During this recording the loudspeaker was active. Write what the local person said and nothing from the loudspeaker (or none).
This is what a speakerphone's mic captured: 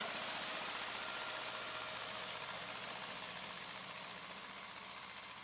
none